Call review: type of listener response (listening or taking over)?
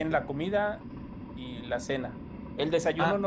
listening